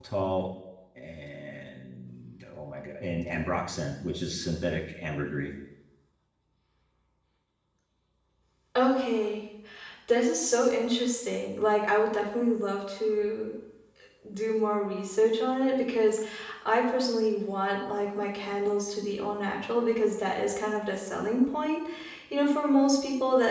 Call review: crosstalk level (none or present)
none